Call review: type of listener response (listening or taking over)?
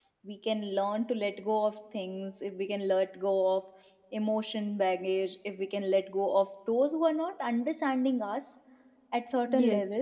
listening